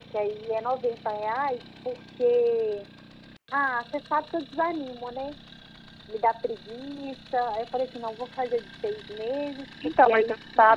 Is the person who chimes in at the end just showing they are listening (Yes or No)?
No